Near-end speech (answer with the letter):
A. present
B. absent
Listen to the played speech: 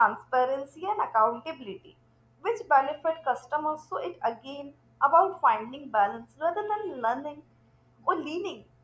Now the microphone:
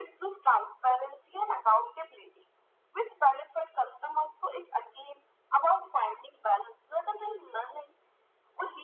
B